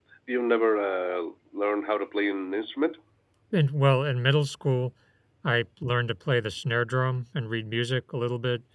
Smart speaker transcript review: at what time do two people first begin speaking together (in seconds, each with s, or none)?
none